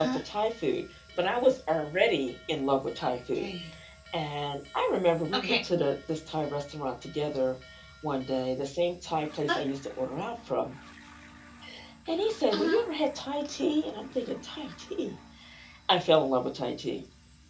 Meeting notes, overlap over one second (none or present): none